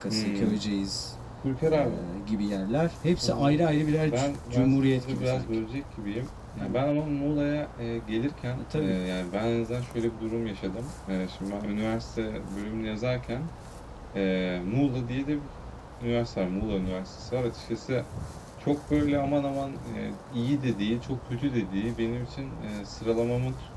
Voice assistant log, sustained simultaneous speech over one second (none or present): present